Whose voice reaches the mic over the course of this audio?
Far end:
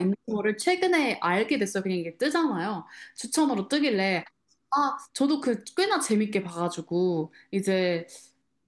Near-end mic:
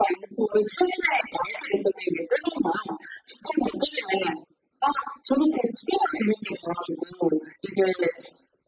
echo only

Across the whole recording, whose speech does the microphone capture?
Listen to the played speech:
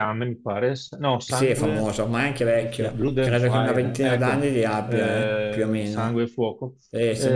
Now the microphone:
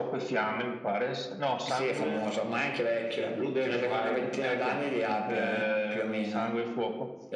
echo only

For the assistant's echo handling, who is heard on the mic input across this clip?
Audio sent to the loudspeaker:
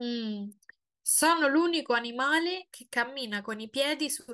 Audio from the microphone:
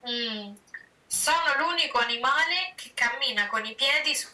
echo only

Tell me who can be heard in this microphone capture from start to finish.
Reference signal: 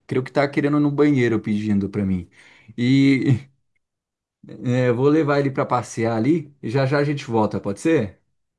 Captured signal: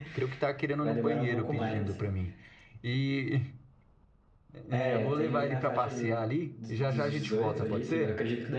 both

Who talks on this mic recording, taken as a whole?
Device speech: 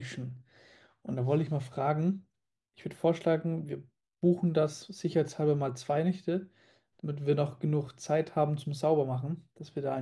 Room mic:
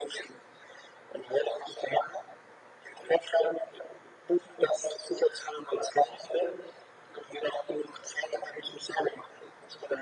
echo only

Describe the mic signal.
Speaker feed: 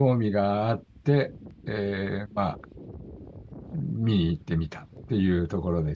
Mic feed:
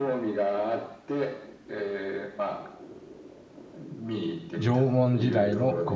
both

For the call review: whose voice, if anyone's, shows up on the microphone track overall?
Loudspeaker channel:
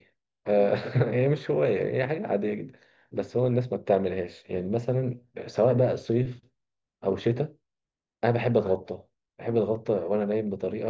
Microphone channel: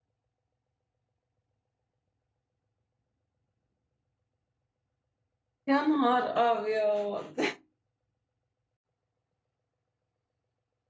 user only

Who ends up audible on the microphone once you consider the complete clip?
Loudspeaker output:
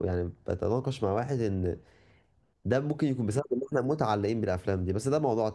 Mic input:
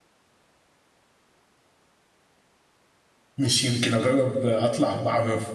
user only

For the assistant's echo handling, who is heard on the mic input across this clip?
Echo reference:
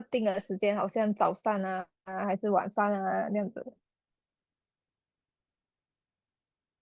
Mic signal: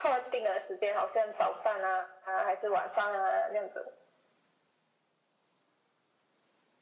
echo only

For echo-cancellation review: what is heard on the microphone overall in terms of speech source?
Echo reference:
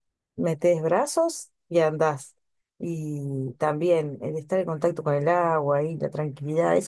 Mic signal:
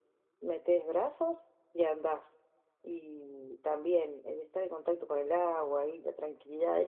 echo only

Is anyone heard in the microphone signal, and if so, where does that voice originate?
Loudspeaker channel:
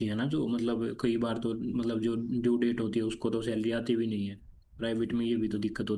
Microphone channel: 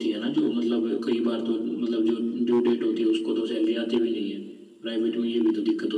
echo only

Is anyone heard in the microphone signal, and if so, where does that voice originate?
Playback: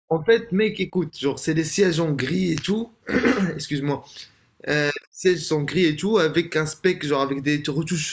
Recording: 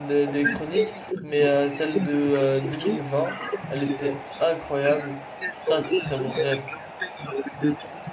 both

